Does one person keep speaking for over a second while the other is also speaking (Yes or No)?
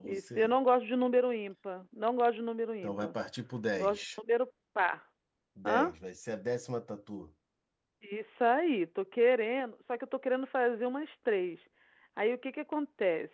No